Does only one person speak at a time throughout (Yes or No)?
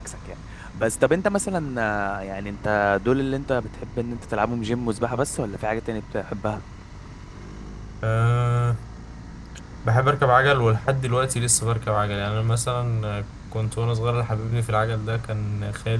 Yes